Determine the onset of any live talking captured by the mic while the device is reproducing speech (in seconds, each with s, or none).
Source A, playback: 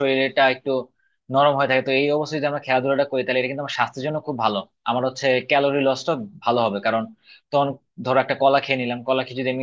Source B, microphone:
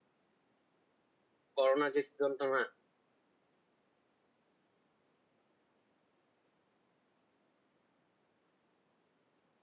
1.6 s